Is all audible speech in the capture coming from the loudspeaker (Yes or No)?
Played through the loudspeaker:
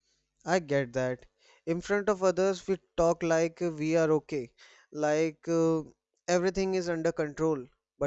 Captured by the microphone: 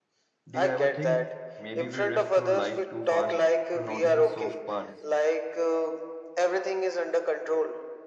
No